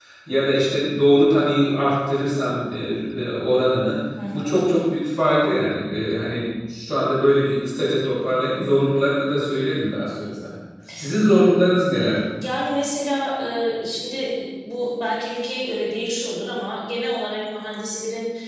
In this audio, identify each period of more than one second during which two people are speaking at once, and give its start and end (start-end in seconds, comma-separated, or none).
none